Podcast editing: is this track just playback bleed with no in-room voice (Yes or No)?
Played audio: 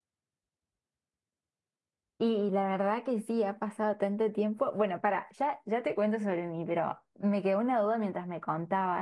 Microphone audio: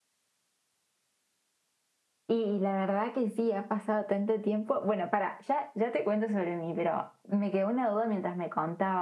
Yes